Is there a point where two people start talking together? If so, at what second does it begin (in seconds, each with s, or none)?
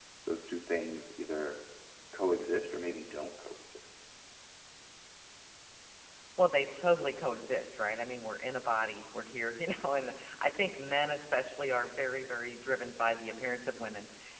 none